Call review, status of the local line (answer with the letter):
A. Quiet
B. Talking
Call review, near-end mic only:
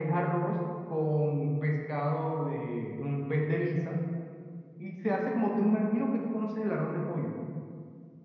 A